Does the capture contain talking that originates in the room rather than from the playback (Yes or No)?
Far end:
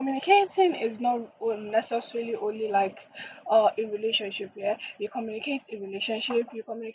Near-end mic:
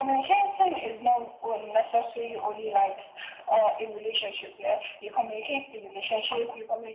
No